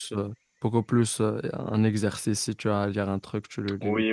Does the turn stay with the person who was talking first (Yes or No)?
No